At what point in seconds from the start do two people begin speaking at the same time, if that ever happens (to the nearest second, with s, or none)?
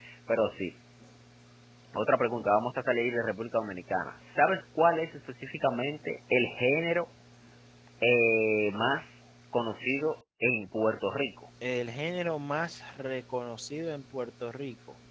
none